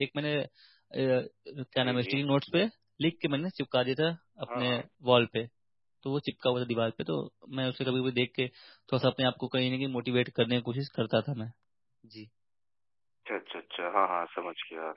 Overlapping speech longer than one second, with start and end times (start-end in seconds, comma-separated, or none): none